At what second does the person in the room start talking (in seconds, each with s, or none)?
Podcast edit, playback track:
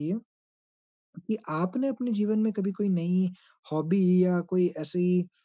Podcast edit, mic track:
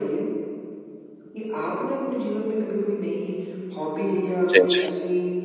4.5 s